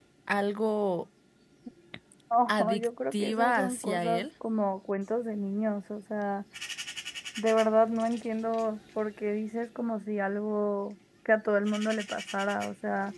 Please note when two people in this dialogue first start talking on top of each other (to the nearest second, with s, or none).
2 s